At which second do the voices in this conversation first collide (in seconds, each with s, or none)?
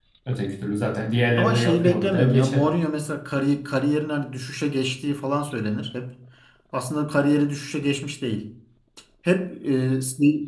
1.4 s